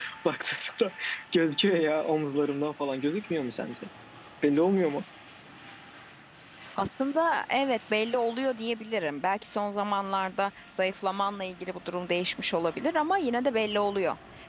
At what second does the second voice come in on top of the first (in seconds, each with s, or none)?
none